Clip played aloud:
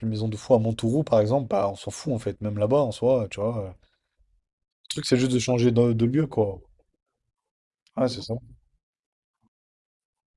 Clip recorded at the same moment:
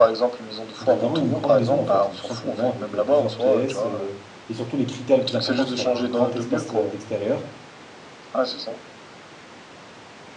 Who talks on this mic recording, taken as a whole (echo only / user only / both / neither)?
both